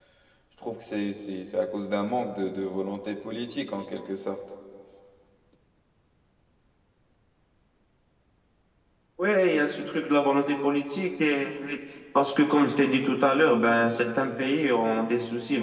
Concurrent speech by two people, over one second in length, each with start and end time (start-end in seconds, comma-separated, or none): none